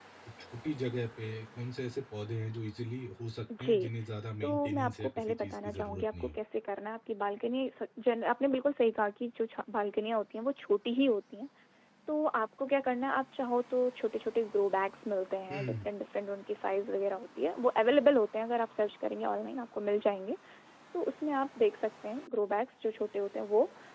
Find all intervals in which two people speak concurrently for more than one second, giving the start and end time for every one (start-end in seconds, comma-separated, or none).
4.4-6.4